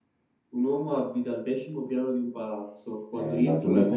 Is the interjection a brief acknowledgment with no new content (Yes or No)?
No